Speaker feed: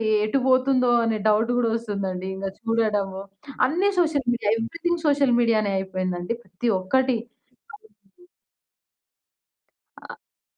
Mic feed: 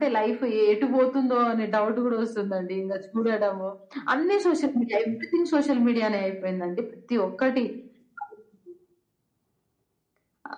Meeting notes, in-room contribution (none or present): none